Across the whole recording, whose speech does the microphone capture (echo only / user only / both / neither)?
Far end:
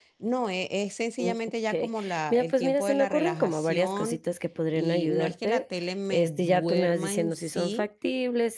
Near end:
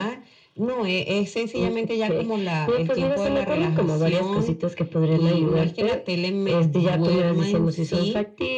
echo only